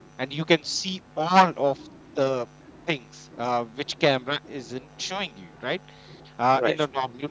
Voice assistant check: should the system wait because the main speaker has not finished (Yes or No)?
Yes